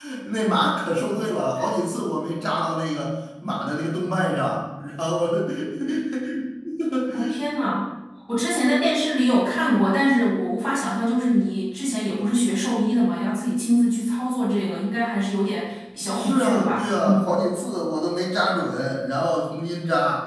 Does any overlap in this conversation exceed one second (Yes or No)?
Yes